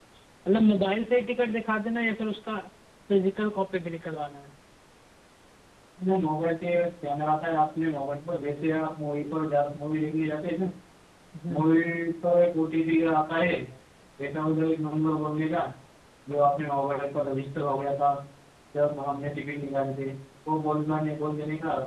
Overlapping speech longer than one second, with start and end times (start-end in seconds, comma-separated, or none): none